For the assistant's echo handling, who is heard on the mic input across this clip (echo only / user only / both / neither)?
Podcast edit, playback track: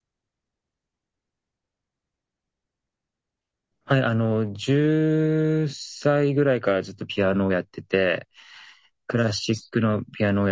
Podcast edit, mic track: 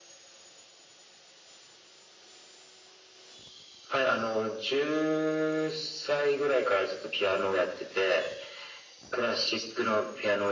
echo only